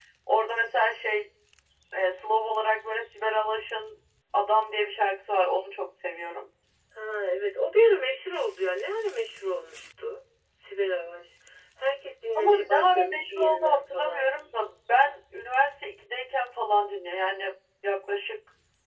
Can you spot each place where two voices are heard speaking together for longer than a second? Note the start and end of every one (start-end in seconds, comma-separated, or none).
12.4-14.3